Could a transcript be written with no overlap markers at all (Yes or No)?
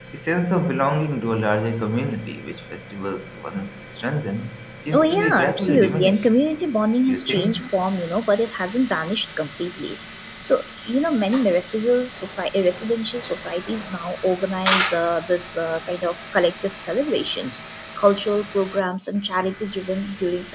No